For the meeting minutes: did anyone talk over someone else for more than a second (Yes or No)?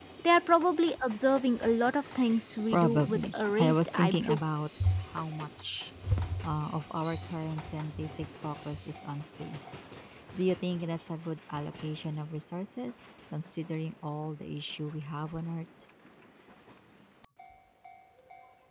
Yes